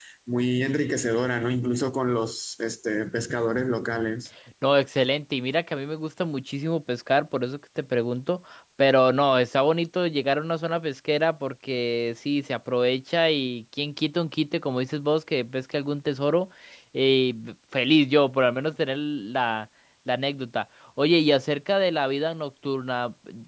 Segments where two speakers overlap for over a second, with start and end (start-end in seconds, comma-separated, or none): none